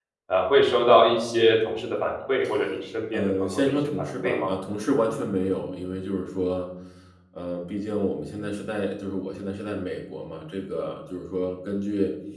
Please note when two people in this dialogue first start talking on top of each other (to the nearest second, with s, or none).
3 s